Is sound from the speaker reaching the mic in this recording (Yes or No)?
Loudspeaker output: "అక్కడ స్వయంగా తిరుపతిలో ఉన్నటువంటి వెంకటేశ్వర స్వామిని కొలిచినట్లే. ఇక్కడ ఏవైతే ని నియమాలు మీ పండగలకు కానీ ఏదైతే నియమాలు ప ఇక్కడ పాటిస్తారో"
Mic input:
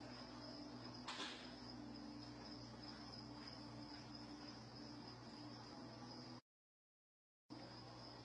No